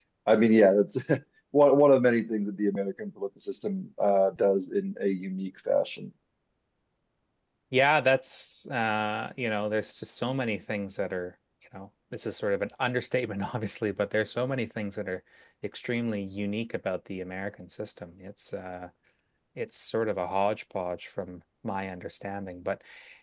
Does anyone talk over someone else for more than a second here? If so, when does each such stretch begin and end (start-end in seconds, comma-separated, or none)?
none